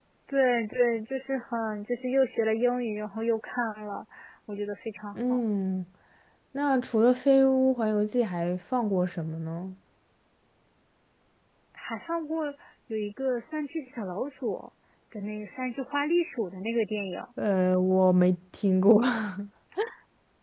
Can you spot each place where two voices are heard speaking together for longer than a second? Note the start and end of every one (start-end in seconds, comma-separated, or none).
none